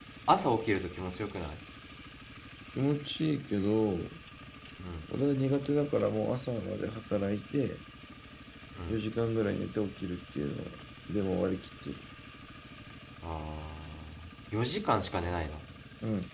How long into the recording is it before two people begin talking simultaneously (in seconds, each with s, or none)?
none